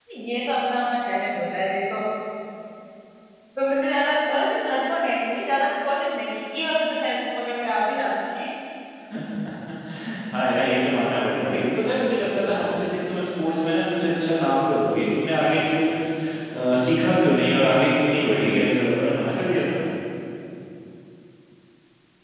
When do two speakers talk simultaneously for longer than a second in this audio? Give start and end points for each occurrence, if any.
none

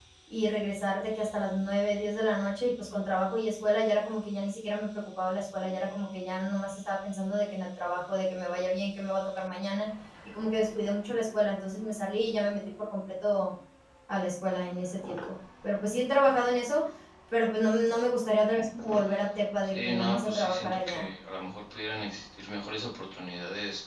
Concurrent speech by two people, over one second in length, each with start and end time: 19.6-21.1

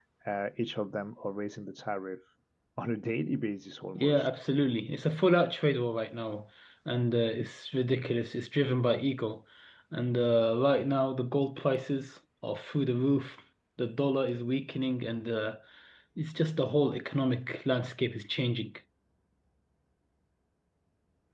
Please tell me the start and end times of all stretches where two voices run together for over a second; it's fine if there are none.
none

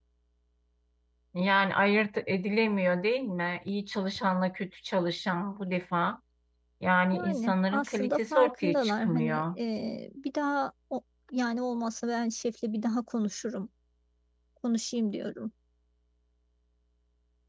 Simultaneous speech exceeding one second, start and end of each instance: 7.1-9.6

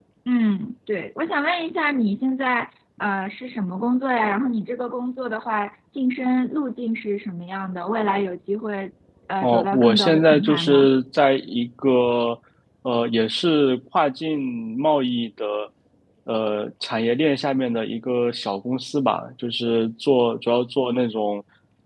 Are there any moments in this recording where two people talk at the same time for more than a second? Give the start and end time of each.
9.4-10.9

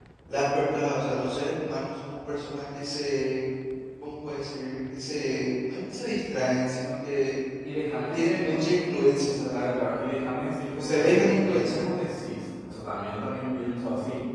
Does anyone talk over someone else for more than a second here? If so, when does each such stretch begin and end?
10.6-11.9

